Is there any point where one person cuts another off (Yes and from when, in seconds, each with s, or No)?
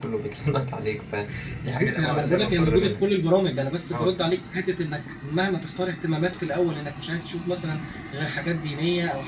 Yes, from 1.6 s